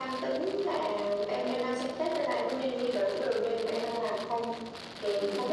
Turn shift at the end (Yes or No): No